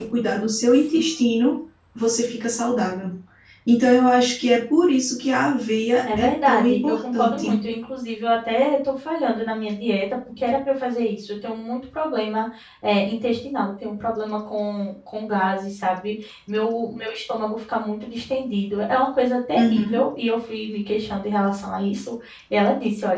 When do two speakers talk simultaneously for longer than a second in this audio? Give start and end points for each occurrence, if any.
6.2-7.6

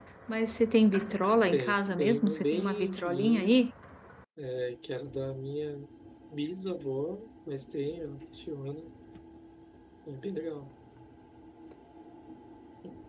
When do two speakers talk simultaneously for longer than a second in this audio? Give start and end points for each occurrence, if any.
1.5-3.6

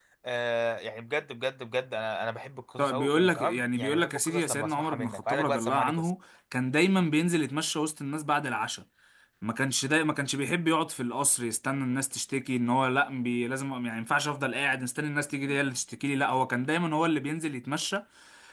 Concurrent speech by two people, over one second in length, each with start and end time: 2.8-6.1

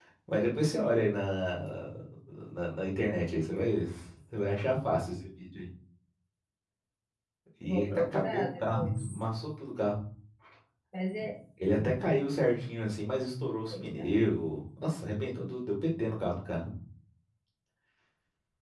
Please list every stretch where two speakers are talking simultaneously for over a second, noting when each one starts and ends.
7.7-9.0

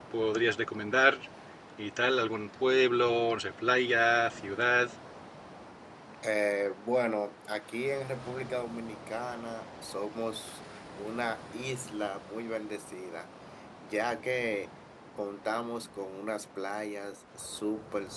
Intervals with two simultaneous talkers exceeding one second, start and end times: none

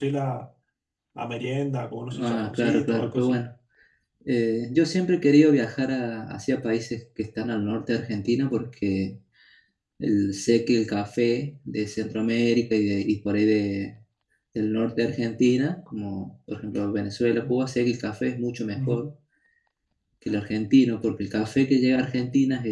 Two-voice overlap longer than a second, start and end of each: 2.1-3.4

